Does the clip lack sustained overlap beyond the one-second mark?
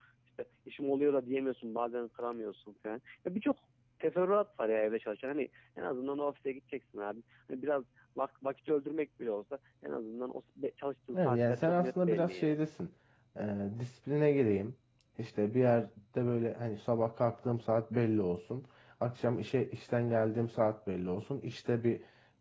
No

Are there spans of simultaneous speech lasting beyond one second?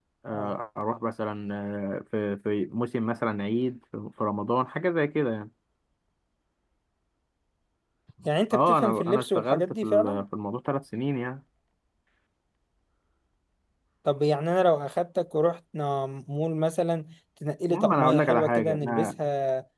Yes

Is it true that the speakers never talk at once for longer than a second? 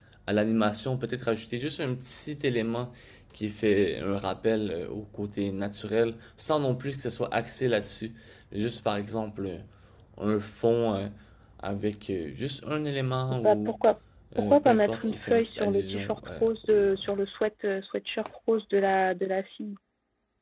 No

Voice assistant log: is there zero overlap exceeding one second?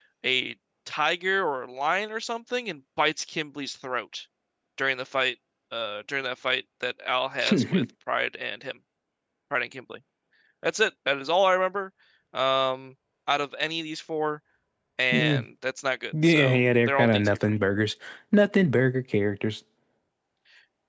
No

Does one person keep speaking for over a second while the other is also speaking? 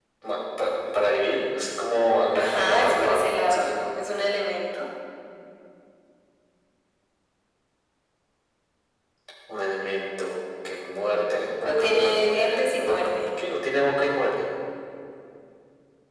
Yes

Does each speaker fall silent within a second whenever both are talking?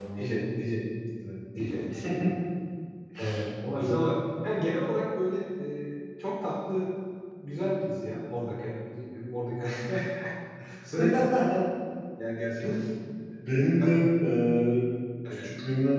Yes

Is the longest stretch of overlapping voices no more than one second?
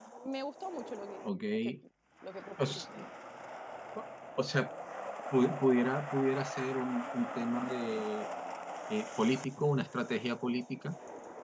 Yes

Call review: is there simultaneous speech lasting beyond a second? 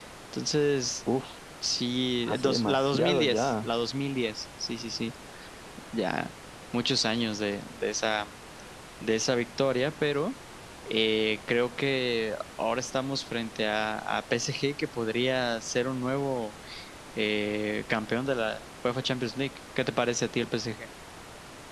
Yes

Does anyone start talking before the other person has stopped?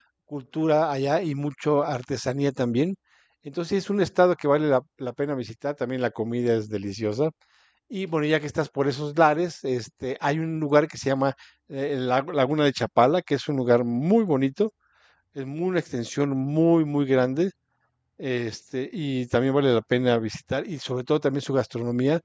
No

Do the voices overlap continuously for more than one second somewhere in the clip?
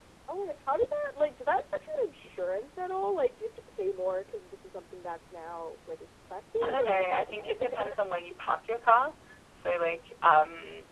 Yes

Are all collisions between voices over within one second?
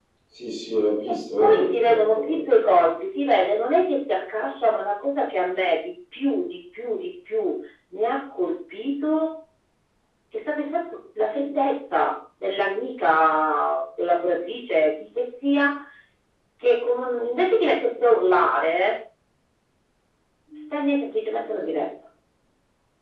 No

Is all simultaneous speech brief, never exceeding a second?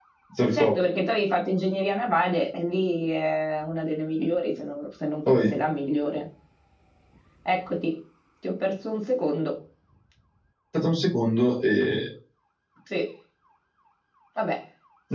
Yes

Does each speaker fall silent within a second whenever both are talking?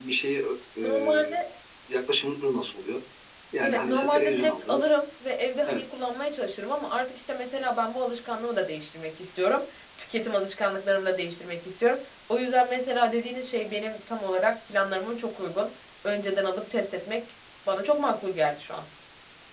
No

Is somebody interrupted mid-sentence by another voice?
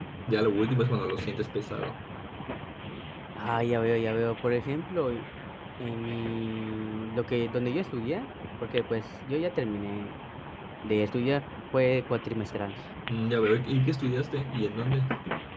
No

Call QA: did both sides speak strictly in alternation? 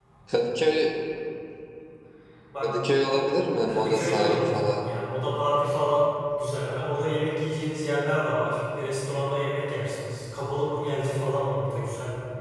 No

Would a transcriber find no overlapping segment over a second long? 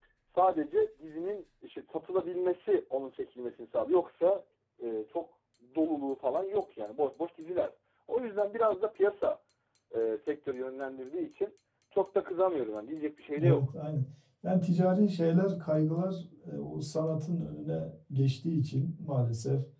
Yes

